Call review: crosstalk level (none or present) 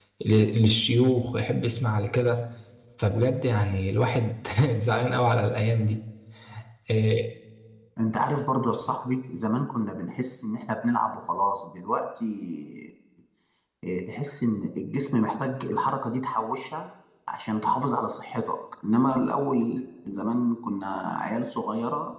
none